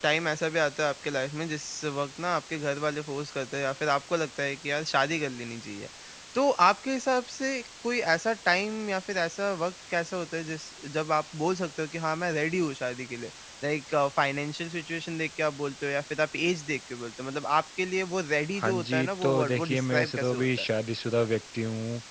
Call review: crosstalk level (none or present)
present